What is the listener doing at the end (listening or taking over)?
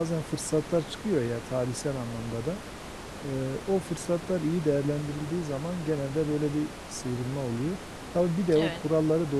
listening